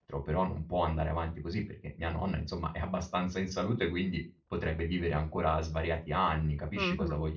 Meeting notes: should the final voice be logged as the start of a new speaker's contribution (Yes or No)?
Yes